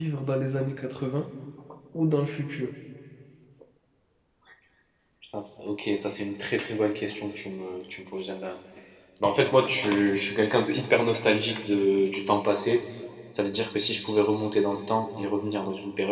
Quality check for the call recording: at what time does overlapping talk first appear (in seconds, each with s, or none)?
none